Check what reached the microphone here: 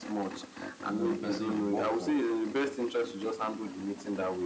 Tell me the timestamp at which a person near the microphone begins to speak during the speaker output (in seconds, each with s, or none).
0.9 s